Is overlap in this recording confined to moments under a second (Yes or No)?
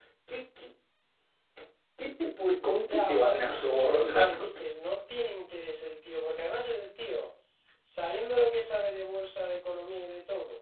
No